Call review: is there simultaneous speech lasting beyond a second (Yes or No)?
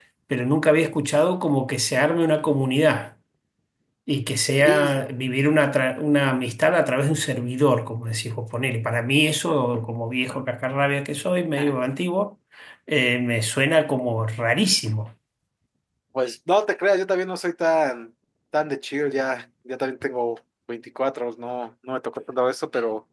No